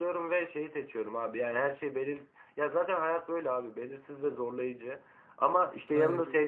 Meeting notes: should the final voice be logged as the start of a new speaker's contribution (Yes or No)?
No